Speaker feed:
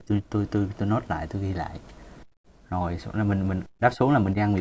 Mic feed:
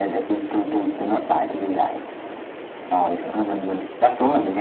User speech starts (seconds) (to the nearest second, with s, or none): none